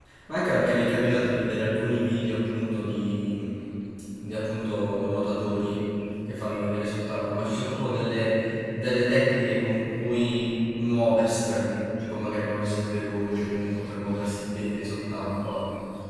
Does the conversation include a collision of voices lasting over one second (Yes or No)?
No